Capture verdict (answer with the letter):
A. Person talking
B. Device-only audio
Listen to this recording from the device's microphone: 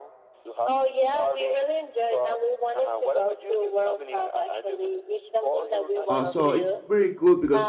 A